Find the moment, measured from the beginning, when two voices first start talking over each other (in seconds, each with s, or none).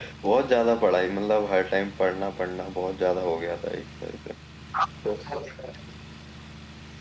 none